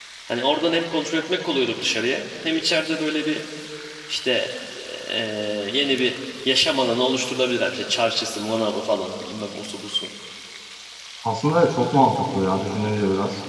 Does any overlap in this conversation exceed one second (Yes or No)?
No